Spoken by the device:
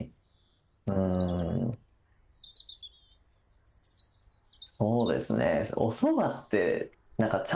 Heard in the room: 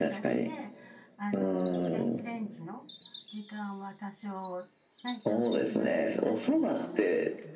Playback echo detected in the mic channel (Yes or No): Yes